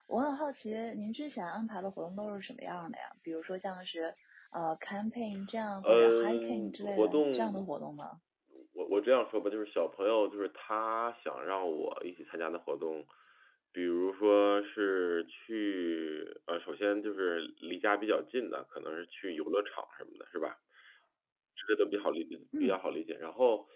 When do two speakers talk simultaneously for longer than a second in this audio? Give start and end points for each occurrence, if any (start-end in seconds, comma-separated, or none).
5.8-7.6